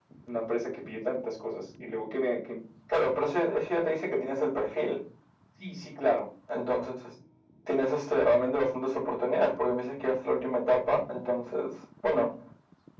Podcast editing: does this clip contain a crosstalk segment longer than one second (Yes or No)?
No